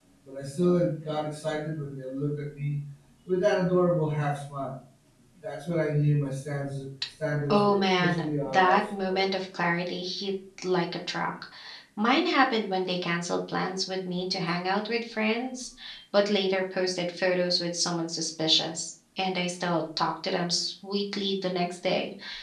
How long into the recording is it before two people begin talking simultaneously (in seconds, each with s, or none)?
7.5 s